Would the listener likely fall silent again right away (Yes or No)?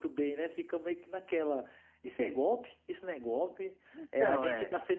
Yes